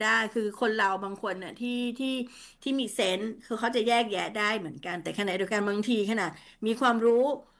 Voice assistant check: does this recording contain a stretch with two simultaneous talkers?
No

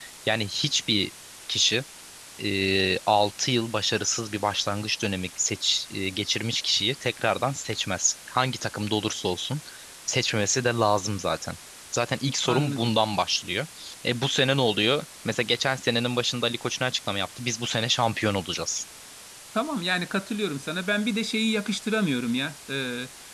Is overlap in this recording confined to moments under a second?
Yes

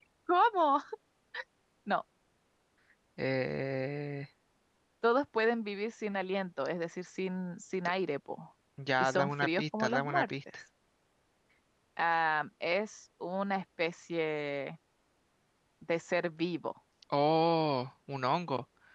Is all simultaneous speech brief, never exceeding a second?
No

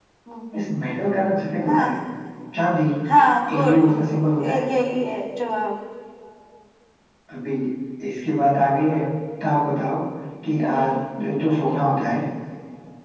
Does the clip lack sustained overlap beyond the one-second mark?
Yes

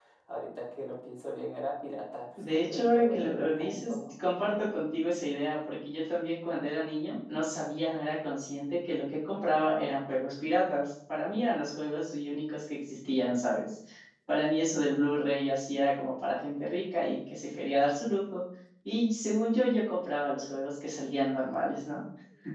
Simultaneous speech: Yes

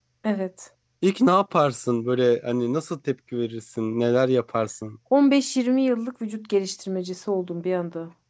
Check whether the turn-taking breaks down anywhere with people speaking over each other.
No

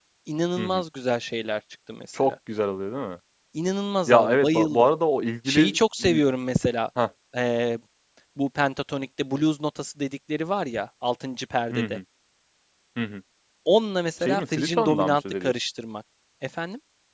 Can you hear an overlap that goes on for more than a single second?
Yes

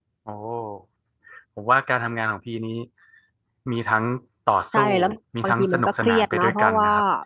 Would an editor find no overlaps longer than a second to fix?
No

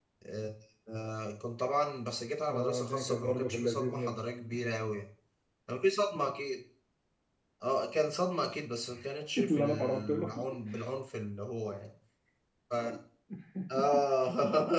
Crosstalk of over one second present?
Yes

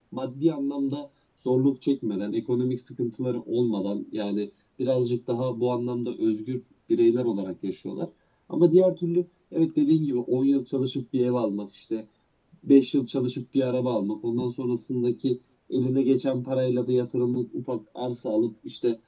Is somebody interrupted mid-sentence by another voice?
No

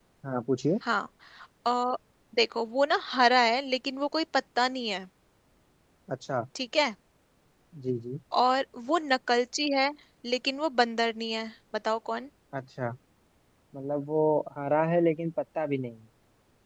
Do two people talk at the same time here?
No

